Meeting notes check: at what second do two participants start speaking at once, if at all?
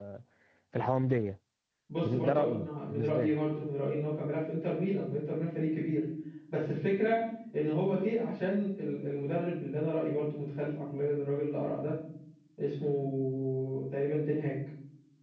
2.0 s

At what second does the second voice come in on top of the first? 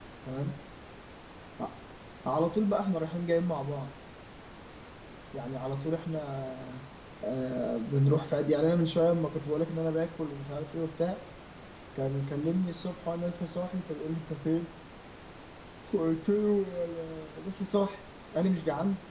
none

